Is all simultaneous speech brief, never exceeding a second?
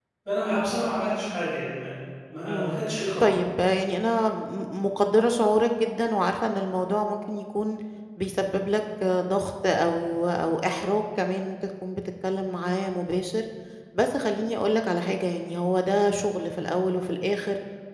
Yes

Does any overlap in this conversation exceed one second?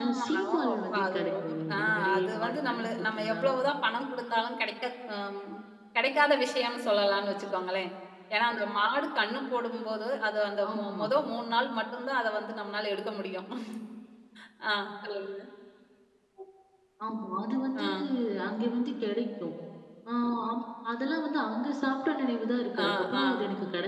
Yes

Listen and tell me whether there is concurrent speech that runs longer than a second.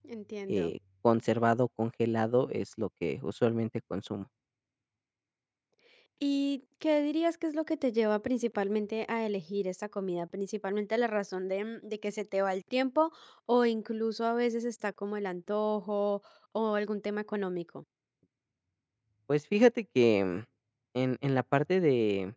No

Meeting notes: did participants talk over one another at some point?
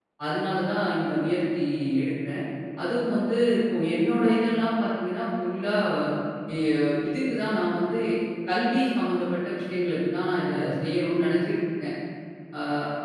No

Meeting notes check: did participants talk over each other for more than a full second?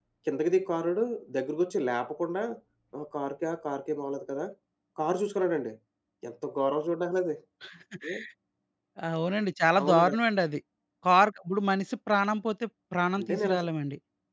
No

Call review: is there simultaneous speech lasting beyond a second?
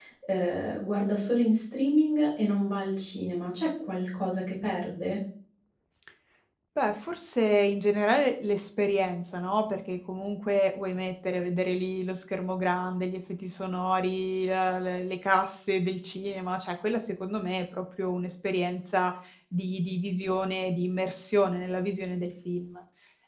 No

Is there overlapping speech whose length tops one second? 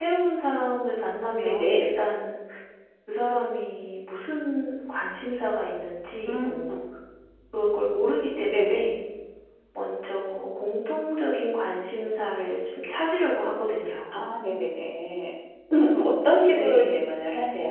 No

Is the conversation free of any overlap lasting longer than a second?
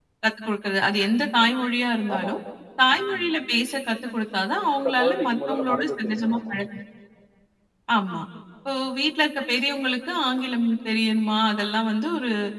No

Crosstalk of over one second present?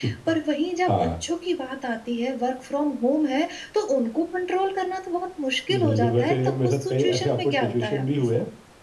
Yes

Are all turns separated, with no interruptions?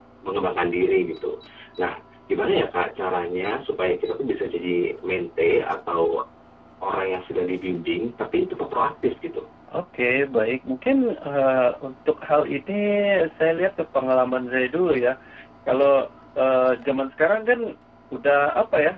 Yes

